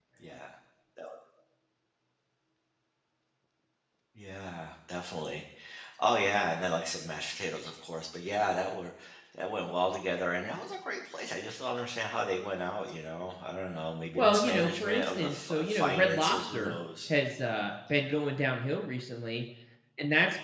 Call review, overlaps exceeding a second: present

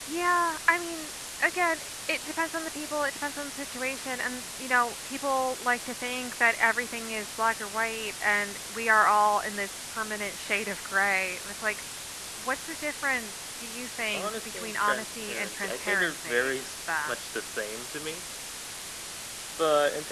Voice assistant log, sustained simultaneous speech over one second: present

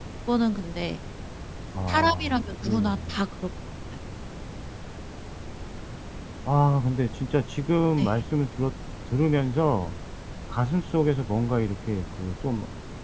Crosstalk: present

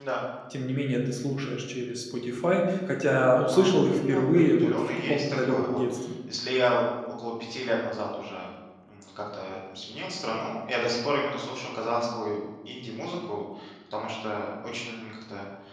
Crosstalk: present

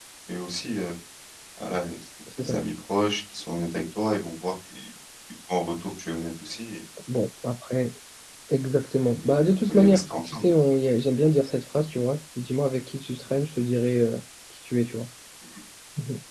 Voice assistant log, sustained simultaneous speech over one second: present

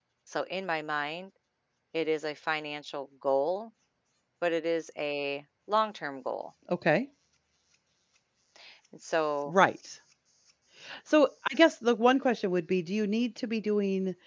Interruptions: none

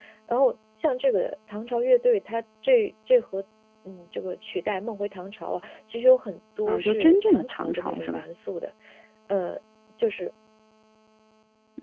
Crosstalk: present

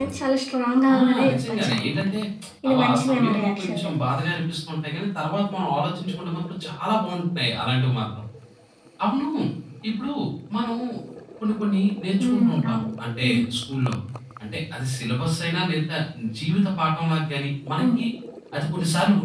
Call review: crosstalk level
present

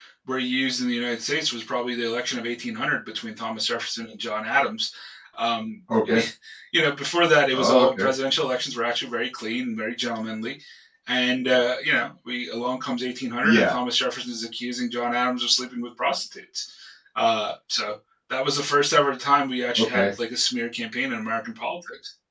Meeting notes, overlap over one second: none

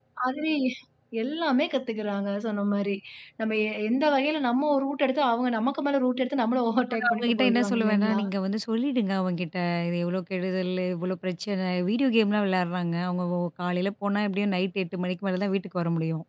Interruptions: present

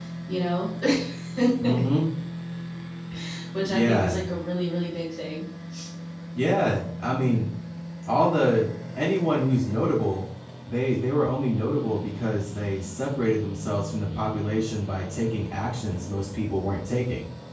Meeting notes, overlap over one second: none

